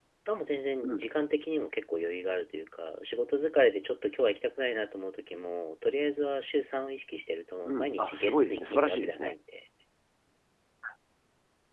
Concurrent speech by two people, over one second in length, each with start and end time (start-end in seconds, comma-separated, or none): 7.7-9.3